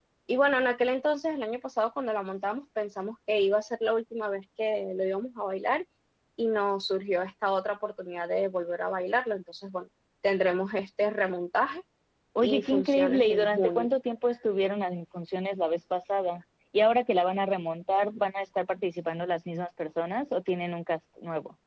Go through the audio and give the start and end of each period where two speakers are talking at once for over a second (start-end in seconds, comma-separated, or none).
12.4-13.9